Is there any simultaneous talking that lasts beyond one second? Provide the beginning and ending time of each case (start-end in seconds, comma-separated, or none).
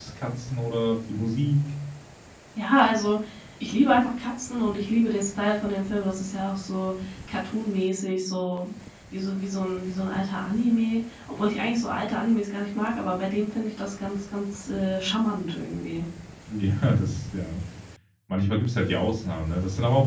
none